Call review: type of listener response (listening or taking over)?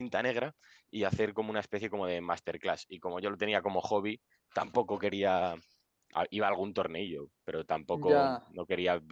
listening